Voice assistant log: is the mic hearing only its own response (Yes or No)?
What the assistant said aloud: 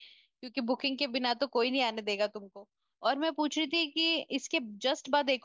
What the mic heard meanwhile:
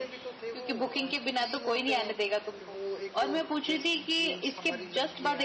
No